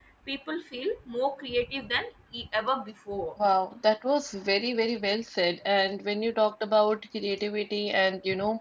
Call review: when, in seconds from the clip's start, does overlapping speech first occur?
none

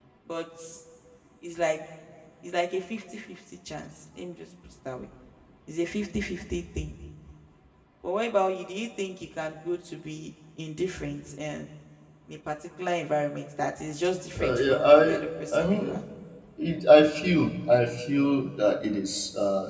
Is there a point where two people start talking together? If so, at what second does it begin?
14 s

